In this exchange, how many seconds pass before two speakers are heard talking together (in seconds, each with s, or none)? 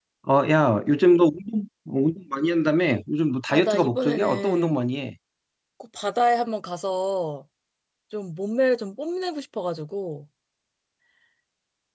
3.5 s